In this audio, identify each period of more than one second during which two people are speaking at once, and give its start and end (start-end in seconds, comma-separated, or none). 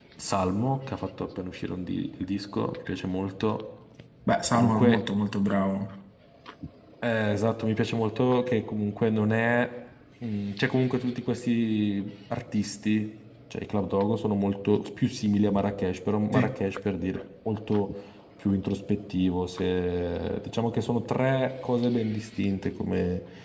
none